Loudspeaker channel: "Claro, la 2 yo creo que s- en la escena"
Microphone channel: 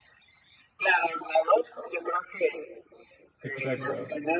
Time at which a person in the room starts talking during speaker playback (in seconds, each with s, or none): 3.4 s